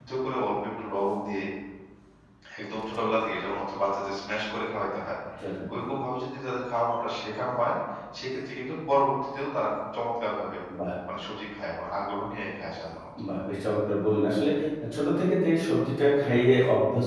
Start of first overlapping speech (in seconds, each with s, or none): none